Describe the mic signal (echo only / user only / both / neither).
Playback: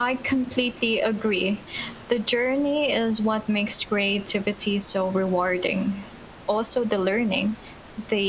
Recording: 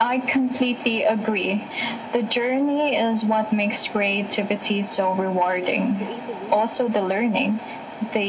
both